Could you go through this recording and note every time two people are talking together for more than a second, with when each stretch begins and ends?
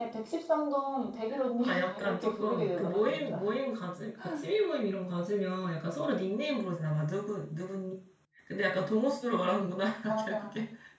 1.6-3.5

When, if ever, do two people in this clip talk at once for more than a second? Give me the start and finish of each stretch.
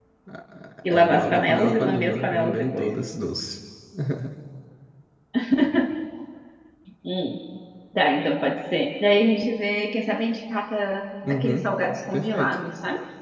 0.9-2.9

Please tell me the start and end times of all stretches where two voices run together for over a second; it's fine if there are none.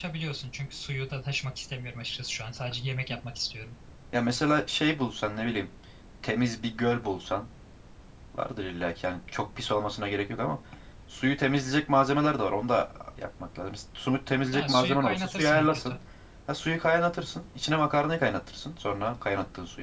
14.5-16.0

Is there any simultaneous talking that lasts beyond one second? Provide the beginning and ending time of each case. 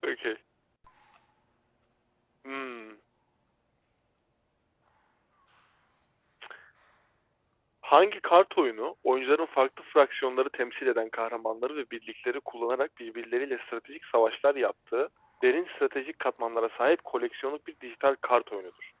none

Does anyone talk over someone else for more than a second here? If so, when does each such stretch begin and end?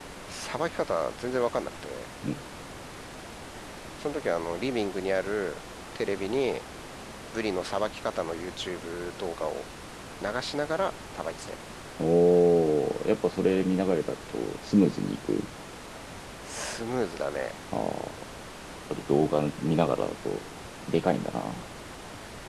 none

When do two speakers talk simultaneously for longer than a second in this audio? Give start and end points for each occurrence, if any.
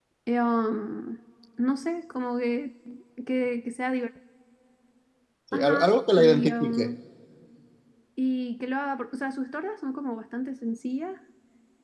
5.5-6.9

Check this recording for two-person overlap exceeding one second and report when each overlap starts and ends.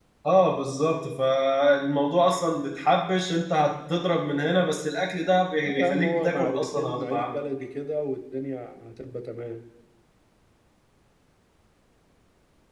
5.6-7.4

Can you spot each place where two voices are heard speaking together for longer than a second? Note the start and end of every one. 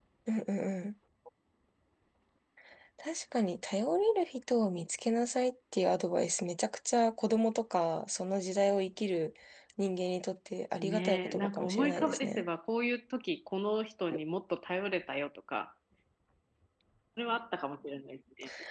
10.8-12.4

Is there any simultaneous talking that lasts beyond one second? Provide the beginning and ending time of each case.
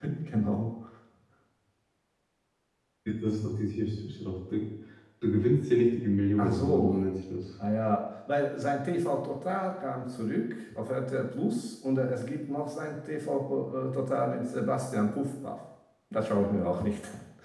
none

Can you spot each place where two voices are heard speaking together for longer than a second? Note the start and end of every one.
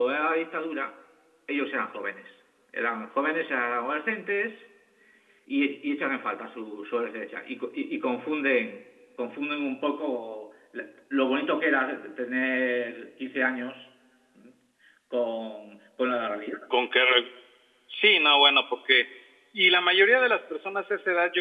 none

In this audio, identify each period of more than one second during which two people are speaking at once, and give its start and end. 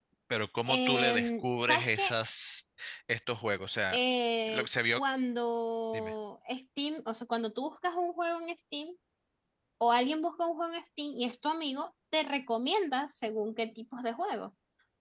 0.6-2.0

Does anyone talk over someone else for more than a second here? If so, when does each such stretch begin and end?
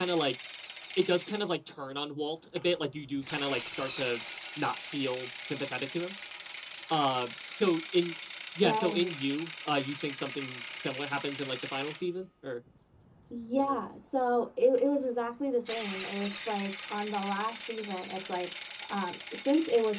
none

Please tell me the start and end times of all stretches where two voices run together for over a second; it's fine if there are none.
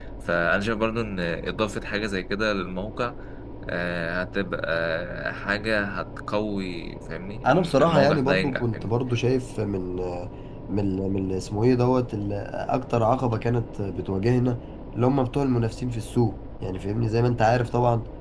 7.4-9.0

